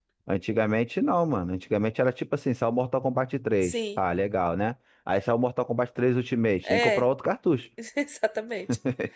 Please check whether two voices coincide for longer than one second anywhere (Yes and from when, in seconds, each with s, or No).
No